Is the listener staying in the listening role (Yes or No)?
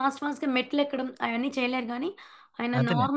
Yes